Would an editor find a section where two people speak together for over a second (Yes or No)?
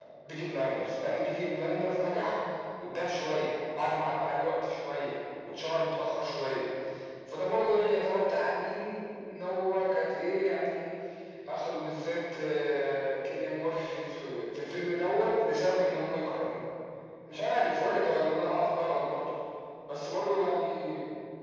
No